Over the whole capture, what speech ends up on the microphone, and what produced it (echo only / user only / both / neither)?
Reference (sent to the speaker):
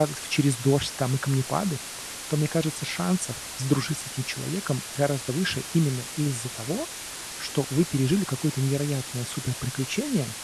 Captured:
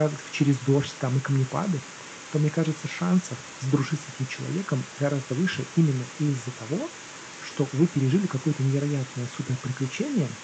echo only